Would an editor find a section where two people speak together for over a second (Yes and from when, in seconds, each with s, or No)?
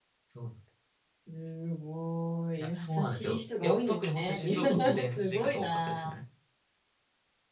Yes, from 2.6 s